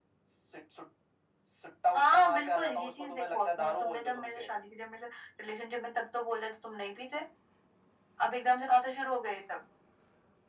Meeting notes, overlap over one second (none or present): present